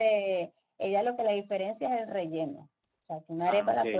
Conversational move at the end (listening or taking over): listening